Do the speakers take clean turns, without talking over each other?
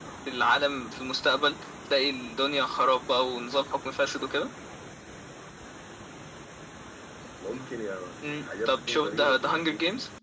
No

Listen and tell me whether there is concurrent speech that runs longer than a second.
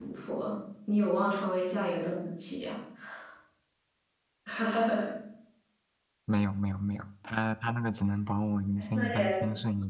No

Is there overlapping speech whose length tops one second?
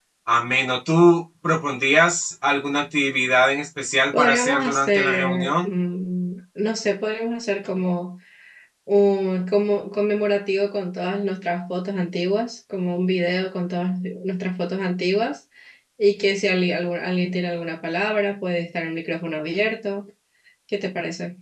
Yes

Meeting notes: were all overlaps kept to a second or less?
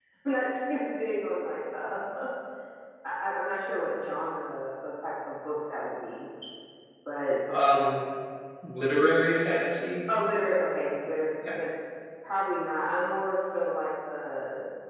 Yes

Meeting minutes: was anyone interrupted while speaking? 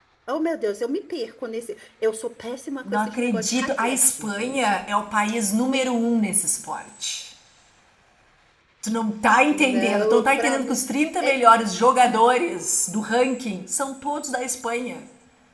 Yes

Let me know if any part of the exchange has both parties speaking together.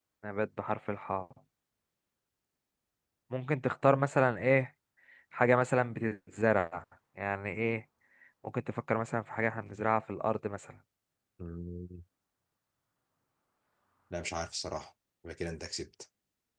No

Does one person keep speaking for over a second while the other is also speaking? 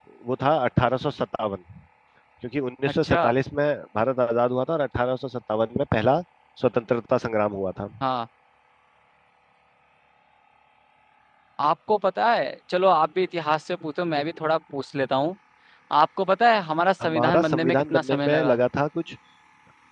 Yes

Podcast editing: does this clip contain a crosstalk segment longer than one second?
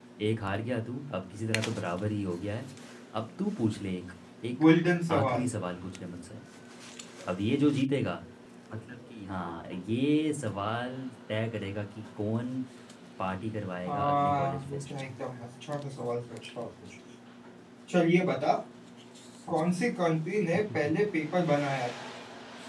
Yes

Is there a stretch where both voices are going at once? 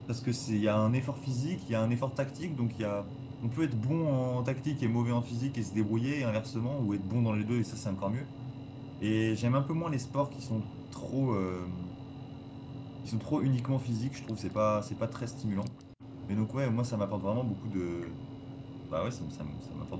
No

